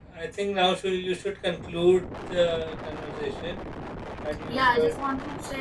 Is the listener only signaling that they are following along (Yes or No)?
No